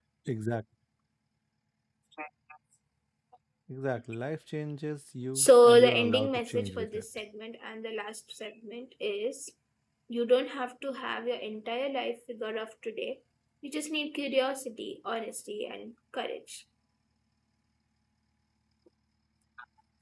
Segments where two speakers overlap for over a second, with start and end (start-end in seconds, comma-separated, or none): 5.4-7.0